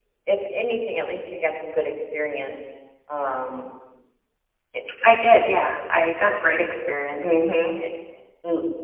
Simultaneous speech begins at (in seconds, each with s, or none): none